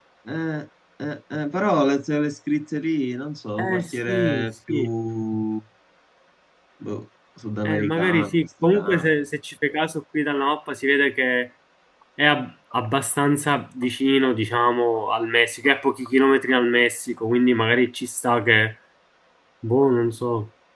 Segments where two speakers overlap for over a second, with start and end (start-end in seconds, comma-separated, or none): 3.6-4.9, 7.6-9.0